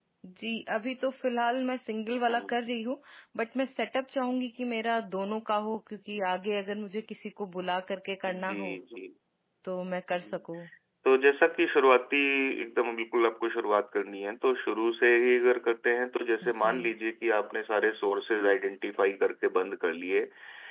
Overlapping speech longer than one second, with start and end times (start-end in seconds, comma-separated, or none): none